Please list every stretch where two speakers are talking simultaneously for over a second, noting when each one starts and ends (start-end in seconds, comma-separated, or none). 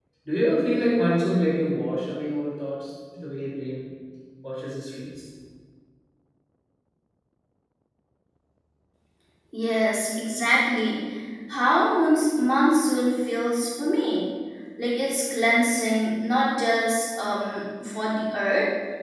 none